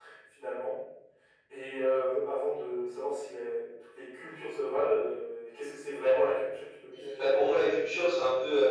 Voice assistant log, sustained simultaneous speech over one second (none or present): none